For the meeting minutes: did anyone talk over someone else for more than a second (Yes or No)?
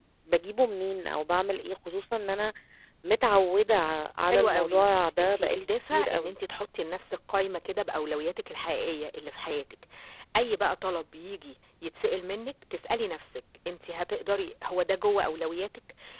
Yes